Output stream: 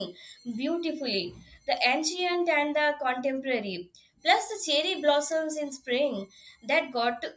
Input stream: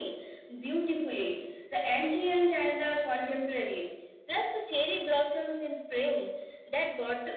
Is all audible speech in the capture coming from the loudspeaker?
Yes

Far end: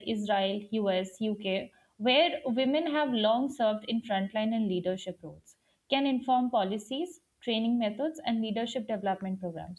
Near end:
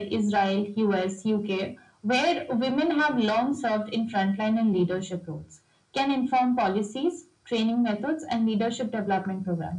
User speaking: No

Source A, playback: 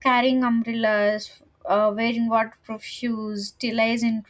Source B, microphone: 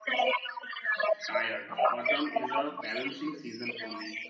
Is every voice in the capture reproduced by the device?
No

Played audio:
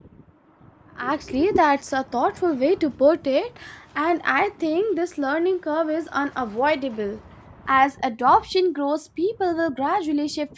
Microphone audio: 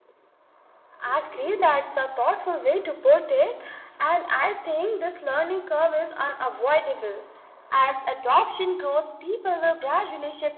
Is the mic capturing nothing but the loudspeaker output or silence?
Yes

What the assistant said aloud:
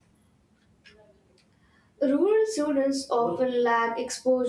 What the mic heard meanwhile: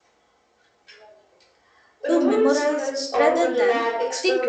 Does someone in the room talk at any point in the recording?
Yes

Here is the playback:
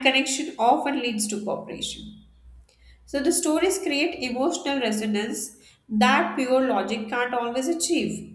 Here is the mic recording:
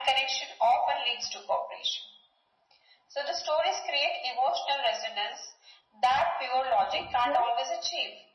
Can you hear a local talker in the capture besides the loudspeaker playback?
Yes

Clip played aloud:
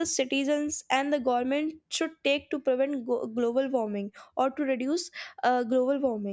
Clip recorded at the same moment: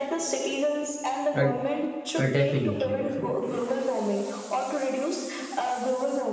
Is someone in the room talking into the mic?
Yes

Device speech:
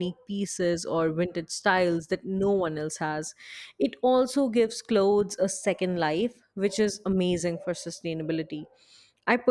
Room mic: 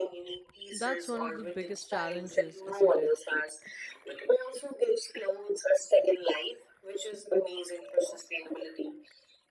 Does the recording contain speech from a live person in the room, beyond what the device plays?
Yes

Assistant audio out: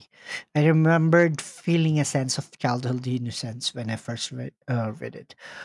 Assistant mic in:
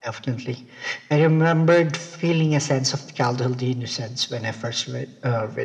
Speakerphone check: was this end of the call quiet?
Yes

